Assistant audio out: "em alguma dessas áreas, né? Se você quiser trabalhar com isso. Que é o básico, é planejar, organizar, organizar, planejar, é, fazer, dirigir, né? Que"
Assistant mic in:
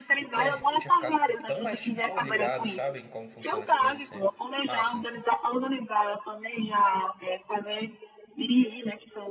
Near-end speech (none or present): present